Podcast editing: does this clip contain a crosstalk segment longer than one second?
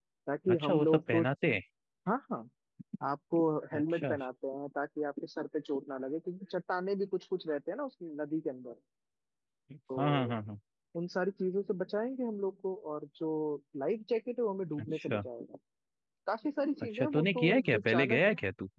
Yes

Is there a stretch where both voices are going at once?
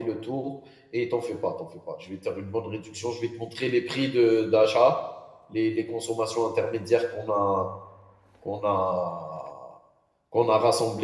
No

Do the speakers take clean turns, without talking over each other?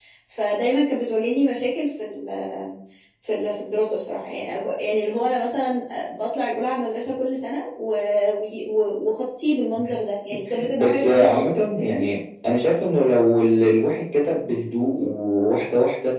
No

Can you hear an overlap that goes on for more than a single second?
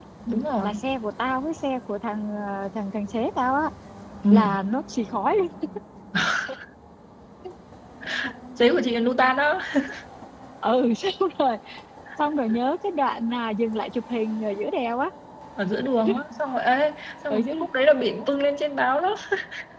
No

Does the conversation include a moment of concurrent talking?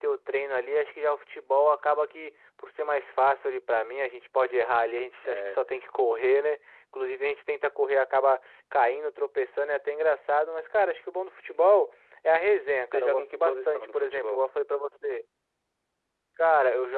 Yes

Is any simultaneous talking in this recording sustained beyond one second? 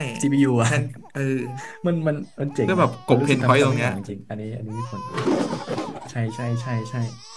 Yes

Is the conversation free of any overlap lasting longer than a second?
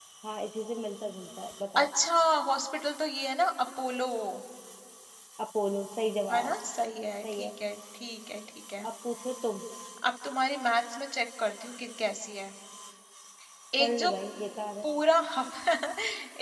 Yes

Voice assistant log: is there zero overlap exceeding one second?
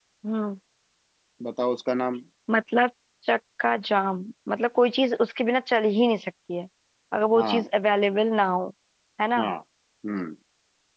Yes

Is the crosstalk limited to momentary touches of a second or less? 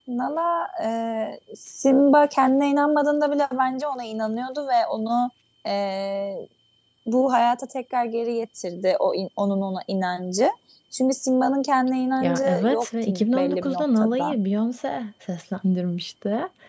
No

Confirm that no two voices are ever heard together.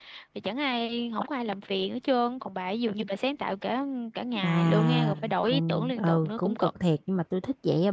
No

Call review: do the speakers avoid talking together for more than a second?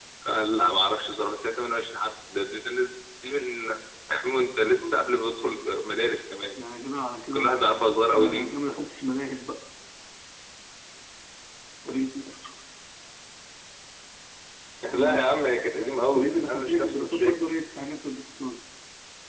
No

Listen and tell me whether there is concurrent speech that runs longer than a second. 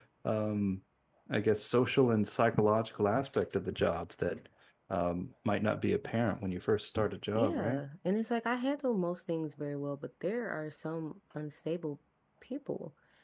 No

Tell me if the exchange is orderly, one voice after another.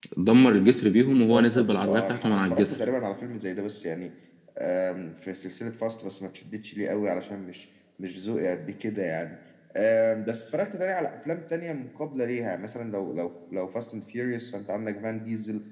No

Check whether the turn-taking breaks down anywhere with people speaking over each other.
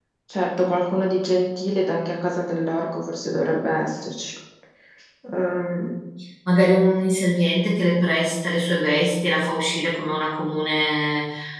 No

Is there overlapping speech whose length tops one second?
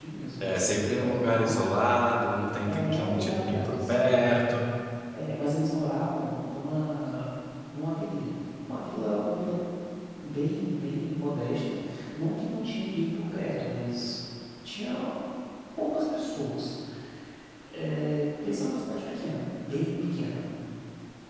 Yes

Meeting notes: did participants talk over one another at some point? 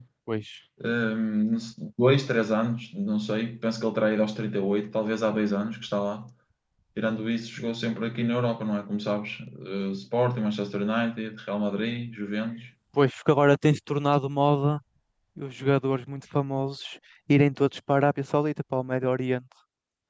No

